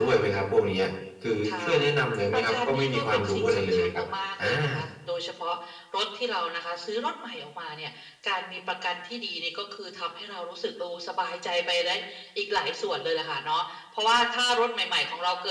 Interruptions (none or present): present